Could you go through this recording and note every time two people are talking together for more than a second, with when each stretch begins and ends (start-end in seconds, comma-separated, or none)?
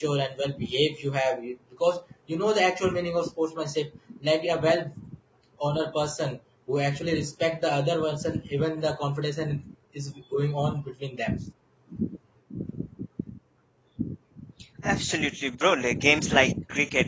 none